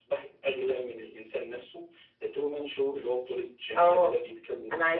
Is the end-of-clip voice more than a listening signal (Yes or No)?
Yes